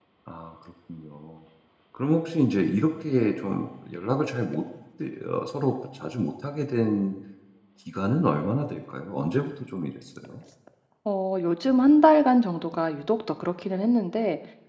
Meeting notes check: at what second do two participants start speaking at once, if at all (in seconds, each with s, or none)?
none